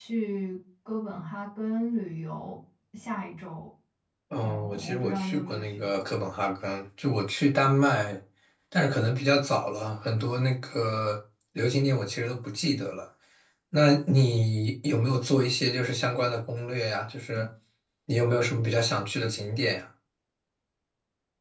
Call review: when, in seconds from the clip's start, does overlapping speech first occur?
4.4 s

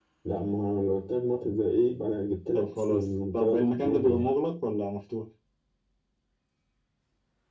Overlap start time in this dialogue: 2.5 s

